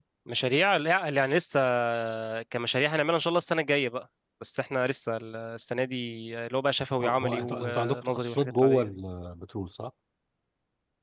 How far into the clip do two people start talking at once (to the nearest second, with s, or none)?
7 s